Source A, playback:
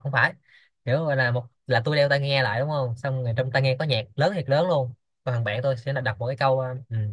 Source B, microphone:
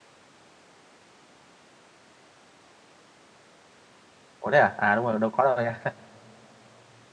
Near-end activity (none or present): present